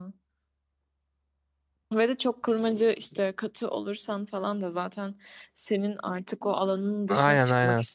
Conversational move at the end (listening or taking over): taking over